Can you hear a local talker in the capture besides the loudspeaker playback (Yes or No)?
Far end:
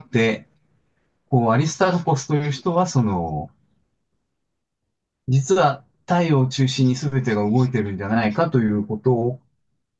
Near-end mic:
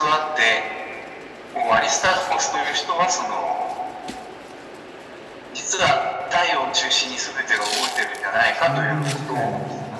Yes